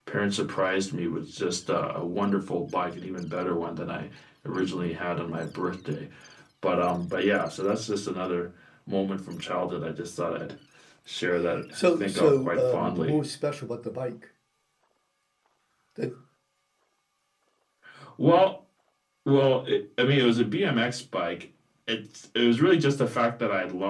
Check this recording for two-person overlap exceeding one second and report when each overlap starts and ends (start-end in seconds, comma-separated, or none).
11.7-13.2